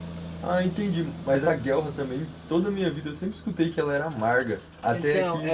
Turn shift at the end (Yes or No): Yes